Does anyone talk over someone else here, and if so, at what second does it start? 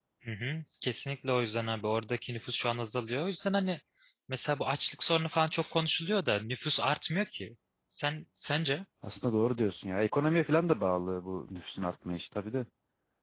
none

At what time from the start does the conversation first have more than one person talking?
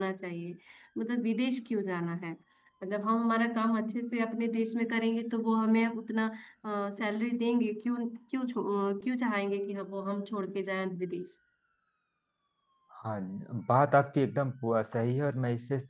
none

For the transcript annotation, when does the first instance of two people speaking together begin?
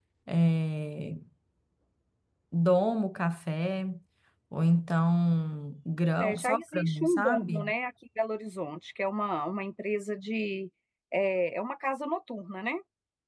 6 s

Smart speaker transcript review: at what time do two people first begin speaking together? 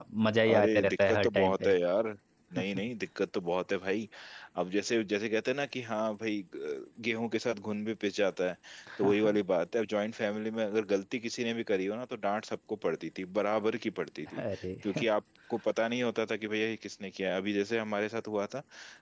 1 s

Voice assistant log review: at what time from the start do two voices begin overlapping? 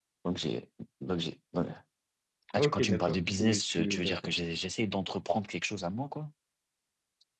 3 s

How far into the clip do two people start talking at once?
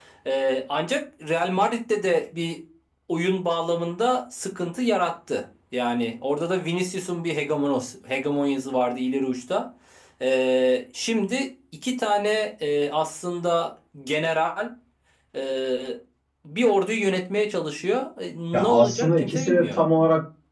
19 s

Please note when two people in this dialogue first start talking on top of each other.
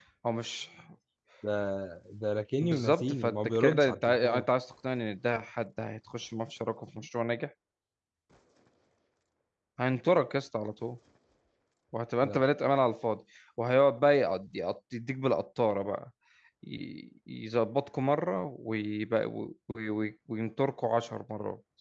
3 s

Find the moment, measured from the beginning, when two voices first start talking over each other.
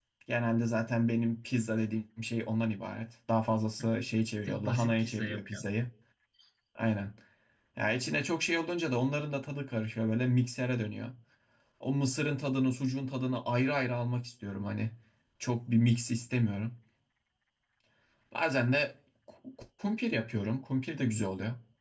4 s

